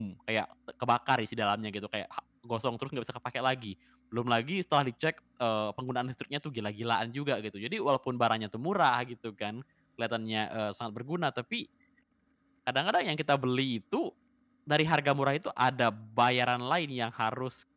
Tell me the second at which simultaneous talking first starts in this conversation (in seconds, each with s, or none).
none